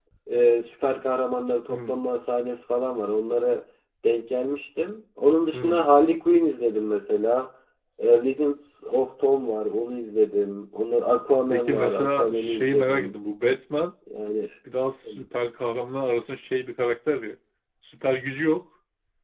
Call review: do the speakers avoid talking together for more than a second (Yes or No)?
No